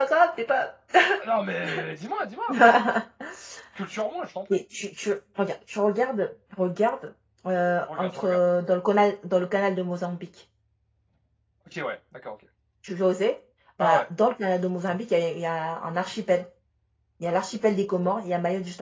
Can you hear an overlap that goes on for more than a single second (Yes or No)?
No